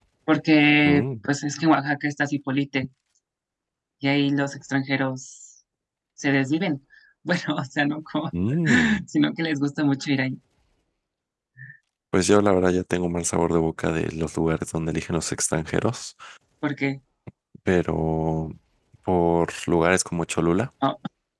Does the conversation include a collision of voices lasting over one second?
No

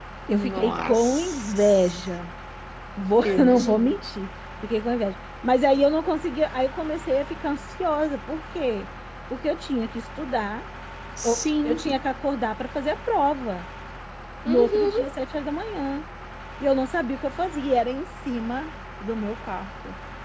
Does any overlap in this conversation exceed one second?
Yes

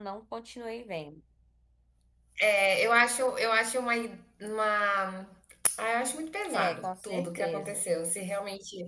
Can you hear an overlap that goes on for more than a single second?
Yes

